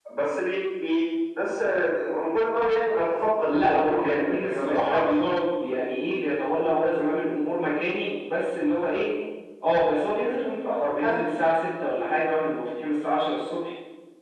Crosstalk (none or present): present